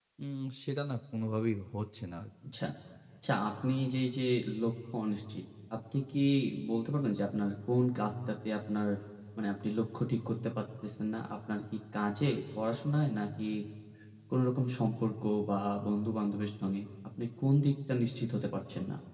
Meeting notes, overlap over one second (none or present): none